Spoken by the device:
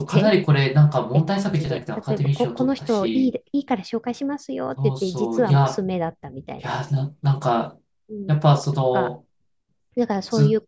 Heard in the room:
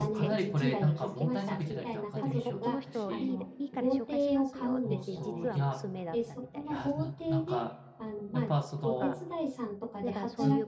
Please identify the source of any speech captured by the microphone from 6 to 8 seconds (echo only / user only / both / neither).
both